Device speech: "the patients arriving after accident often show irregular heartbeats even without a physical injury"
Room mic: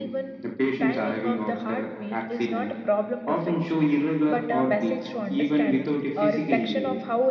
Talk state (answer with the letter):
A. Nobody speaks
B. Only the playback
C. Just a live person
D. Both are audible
D